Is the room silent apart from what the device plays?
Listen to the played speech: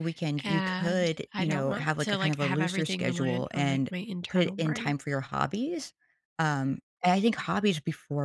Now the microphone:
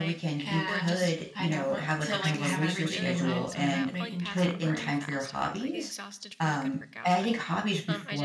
No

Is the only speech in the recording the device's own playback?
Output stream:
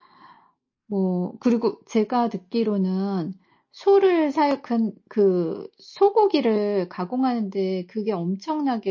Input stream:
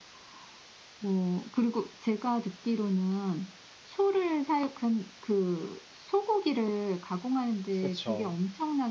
No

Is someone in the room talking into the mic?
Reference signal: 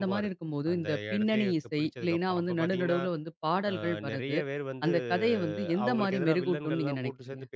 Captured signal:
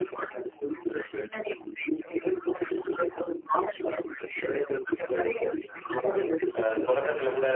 Yes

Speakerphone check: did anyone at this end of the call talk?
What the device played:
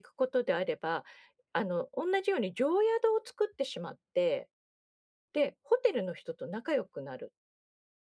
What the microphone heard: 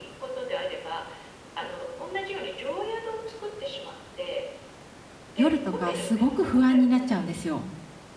Yes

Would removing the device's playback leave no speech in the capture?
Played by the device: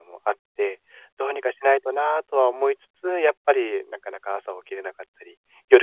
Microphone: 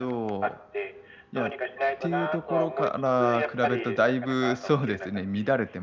No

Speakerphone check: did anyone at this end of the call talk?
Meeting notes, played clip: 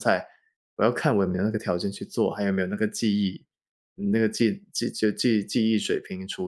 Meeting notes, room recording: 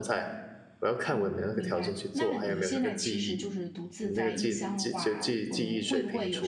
Yes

